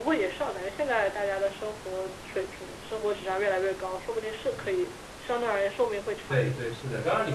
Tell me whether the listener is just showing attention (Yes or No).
No